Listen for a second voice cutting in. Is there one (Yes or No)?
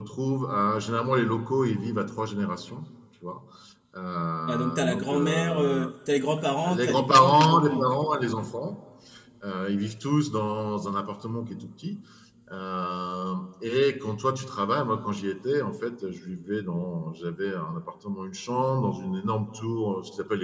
Yes